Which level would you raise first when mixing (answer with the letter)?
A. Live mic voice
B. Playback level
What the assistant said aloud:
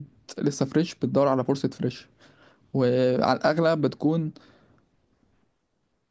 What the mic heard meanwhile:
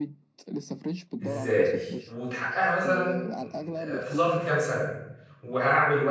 B